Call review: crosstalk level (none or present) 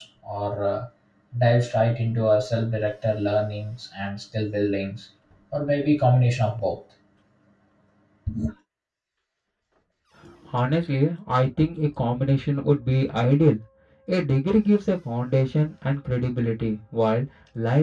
none